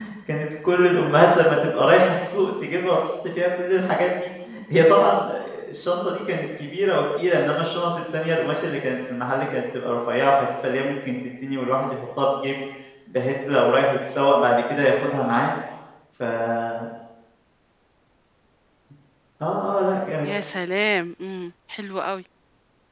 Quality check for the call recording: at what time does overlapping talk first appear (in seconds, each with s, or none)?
none